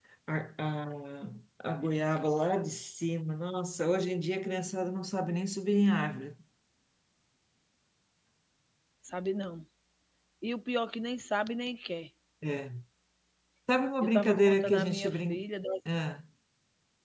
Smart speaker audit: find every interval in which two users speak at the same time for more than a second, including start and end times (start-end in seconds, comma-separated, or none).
14.0-15.4